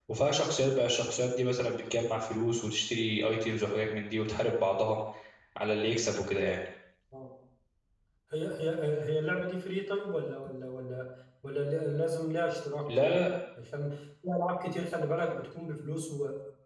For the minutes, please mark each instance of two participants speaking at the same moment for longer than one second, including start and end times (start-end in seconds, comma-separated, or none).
none